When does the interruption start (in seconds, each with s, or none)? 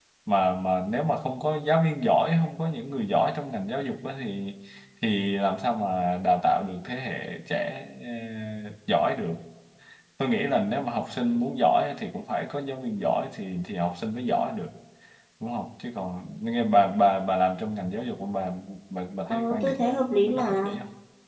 19.3 s